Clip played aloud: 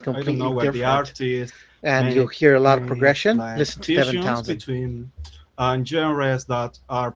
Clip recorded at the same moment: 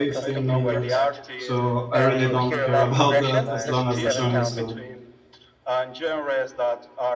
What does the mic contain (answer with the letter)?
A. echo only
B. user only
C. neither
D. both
D